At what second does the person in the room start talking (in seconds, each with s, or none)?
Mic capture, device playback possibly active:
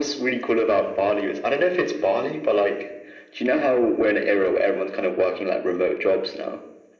none